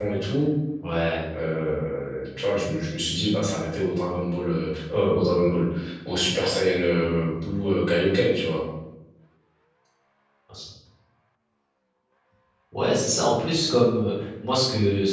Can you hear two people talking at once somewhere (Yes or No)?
No